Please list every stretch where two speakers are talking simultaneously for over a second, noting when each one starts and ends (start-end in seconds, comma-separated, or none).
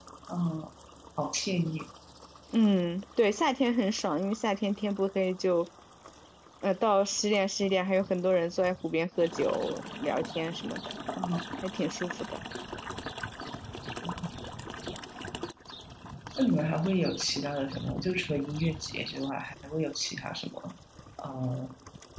none